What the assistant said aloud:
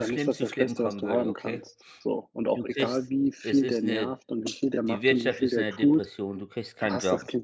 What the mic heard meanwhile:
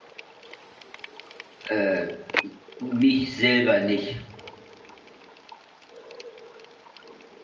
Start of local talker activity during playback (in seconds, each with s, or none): 1.7 s